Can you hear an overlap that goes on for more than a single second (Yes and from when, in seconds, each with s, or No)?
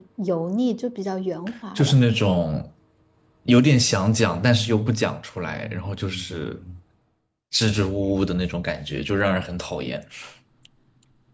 No